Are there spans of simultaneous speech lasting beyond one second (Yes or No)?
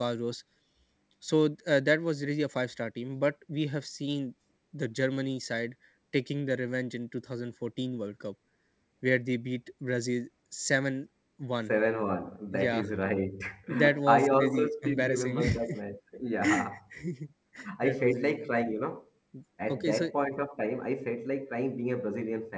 Yes